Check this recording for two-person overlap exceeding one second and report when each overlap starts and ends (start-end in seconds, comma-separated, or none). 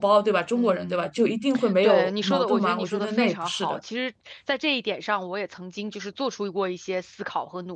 1.8-3.8